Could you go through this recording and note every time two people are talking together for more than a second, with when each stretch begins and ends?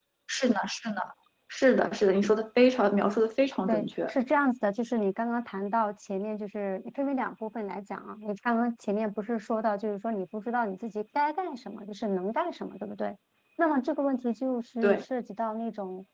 none

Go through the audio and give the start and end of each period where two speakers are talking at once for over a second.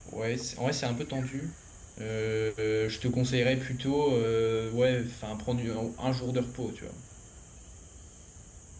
none

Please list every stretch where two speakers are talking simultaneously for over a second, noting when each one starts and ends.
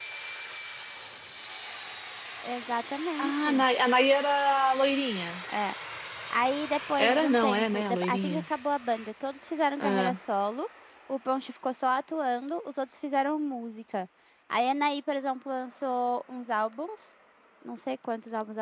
7.0-8.4

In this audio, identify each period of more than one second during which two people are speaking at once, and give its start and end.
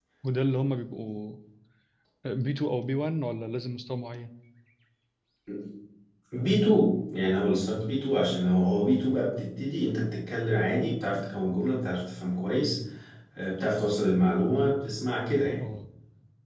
none

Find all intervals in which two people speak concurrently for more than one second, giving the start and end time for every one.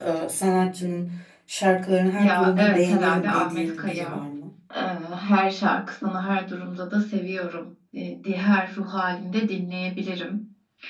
2.2-4.2

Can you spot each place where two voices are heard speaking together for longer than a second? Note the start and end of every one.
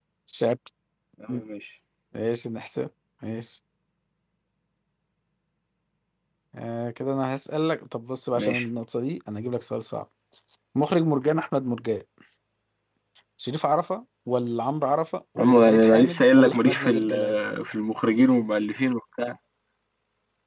15.4-17.3

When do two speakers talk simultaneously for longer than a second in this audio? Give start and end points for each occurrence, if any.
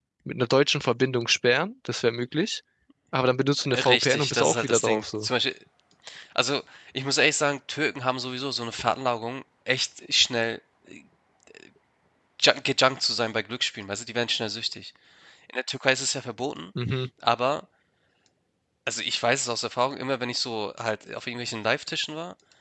3.7-5.3

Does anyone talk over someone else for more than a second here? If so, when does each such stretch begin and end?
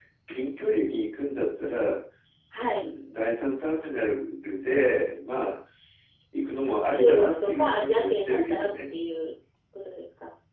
6.6-8.7

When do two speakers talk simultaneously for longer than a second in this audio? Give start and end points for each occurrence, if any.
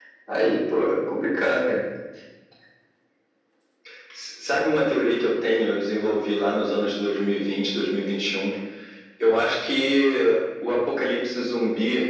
none

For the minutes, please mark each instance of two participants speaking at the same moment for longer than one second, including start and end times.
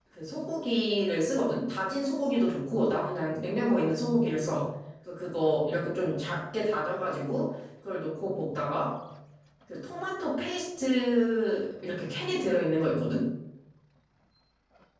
none

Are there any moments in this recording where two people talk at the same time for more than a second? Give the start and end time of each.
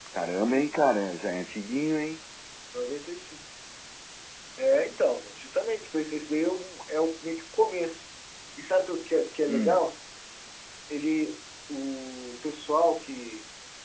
none

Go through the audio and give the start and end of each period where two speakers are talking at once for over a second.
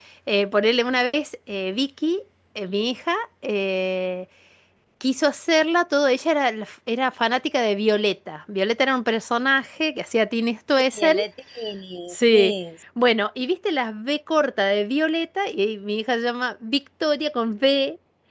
none

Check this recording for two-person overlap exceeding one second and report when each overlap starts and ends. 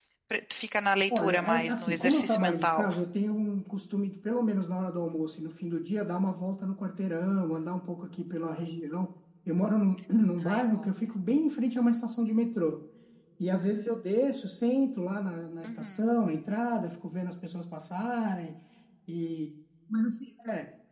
1.2-2.9

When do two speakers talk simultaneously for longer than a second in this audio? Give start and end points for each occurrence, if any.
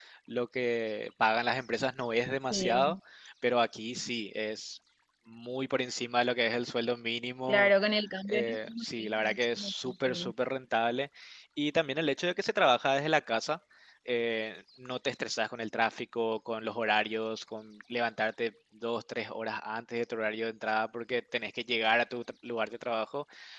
8.3-10.3

